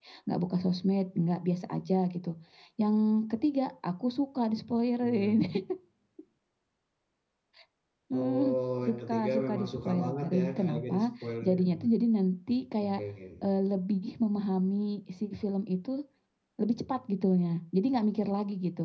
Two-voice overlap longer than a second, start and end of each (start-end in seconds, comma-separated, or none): 8.8-11.1